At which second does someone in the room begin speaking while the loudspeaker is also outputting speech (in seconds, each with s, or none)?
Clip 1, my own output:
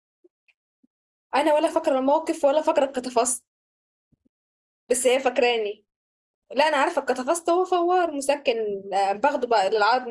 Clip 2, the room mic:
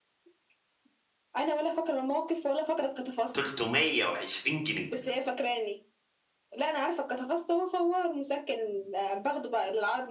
3.3 s